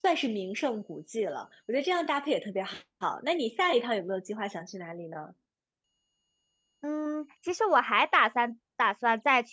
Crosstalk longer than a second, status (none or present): none